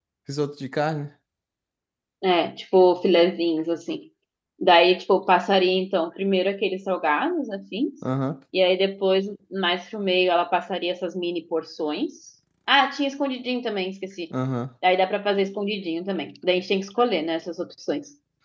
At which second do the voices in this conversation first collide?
none

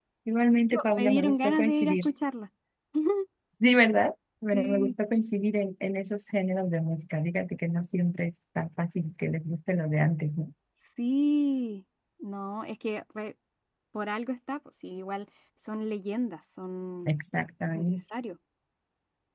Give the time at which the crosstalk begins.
1 s

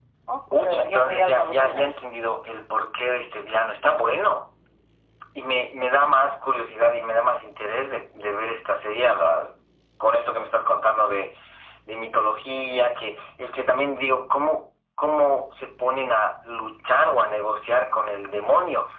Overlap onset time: 1 s

